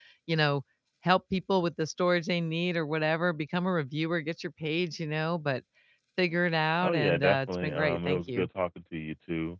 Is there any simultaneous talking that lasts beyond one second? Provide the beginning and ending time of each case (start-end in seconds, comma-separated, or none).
6.8-8.5